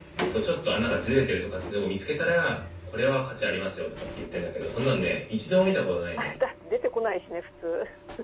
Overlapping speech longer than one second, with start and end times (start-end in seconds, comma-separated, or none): none